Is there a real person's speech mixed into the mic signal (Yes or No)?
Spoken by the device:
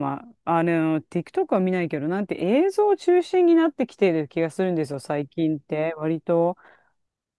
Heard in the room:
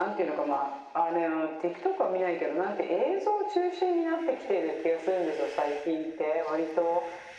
No